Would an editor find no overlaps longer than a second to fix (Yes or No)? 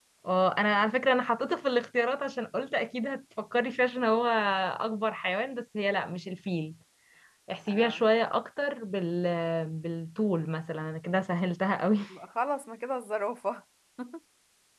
Yes